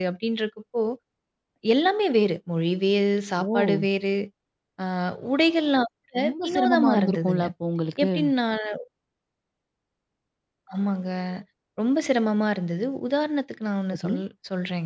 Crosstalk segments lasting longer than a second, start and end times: 6.2-7.4

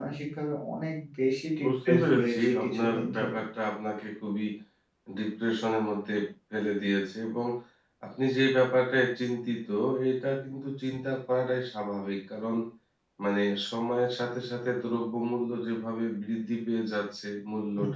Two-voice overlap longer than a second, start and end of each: 1.6-3.4

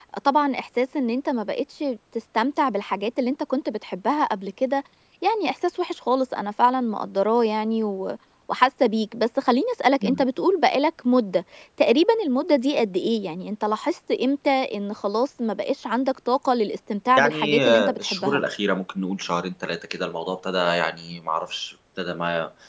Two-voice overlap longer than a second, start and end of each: 17.2-18.4

